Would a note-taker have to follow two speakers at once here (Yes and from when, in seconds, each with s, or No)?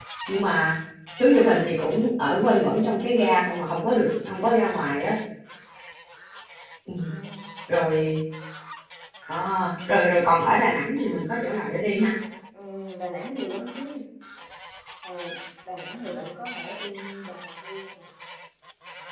No